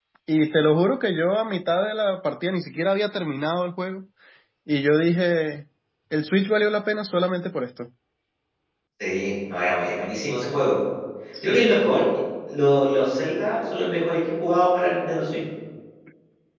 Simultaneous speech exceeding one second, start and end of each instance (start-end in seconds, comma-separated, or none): none